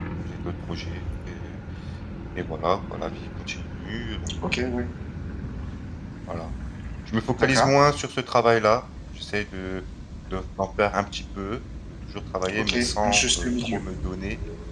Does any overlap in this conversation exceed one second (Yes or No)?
Yes